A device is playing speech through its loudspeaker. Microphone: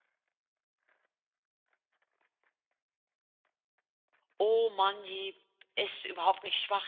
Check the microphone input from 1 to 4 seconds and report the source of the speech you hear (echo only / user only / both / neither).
neither